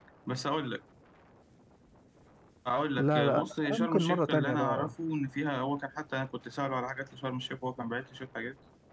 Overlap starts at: 3.0 s

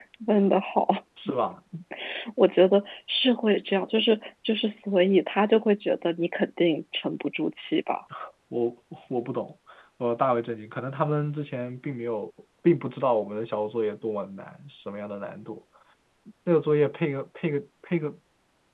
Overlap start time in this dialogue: none

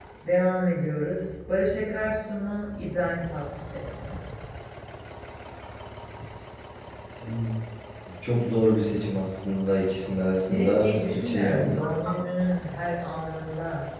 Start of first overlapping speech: 10.5 s

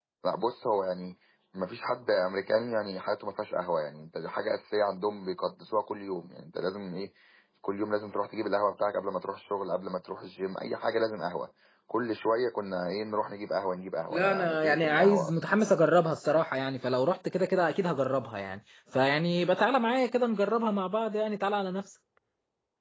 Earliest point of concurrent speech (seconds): 14.1 s

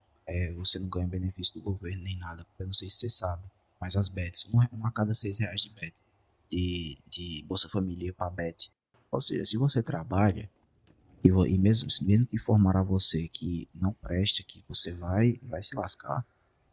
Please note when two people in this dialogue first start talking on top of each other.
none

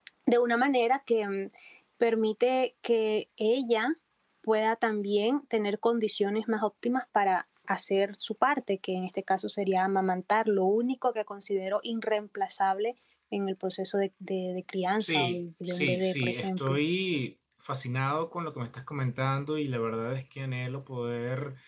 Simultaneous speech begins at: 15.0 s

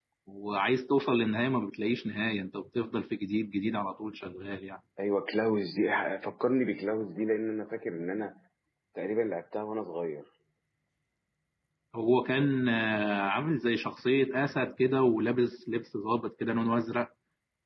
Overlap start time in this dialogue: none

